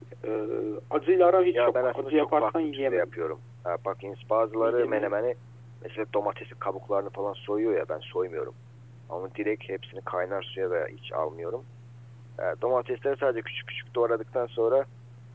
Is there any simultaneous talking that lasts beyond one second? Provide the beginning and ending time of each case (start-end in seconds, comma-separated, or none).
1.5-3.1